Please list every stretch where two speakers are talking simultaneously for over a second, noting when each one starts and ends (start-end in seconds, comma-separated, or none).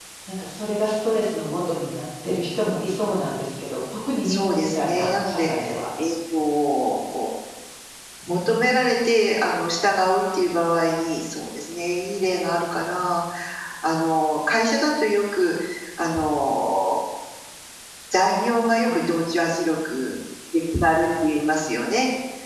4.2-5.5